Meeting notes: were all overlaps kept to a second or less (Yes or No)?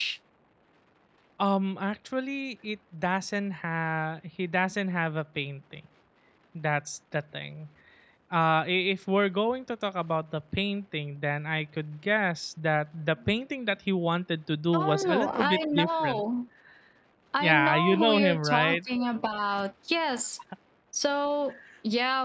No